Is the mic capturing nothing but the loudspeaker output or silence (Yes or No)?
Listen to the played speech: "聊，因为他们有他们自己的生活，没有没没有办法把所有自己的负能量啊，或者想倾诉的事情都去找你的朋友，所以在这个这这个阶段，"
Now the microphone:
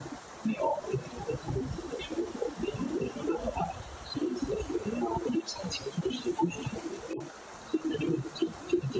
Yes